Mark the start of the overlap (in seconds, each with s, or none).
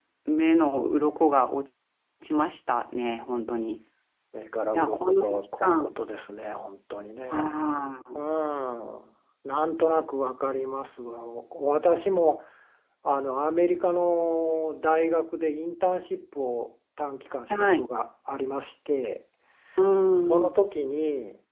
4.7 s